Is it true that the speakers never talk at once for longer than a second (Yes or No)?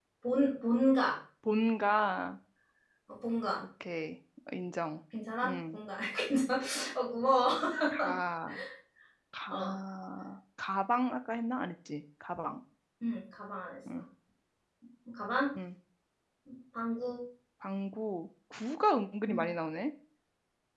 Yes